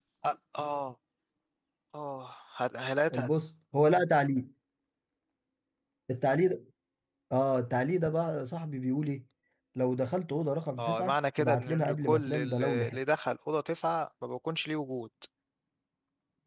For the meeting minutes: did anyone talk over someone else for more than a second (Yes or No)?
Yes